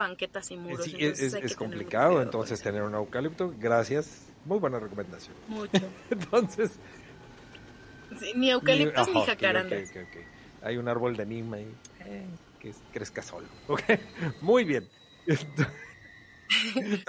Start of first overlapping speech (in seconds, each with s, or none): 0.7 s